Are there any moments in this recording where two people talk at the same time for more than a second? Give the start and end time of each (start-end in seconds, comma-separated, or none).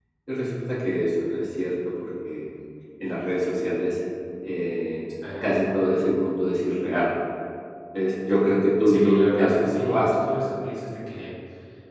8.8-10.1